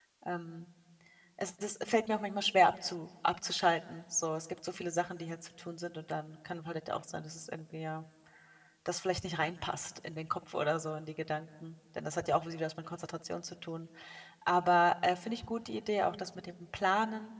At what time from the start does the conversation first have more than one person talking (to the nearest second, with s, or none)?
none